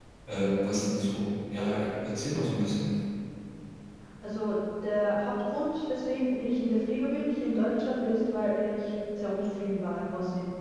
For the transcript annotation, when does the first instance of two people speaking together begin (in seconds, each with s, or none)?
none